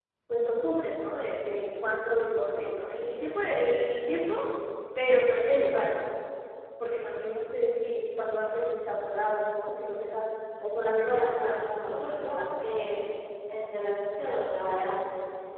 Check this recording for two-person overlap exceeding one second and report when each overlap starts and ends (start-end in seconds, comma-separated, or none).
11.0-12.4